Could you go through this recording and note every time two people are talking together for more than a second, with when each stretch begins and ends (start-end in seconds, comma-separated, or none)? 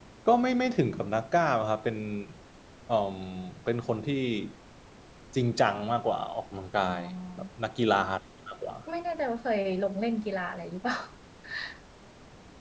none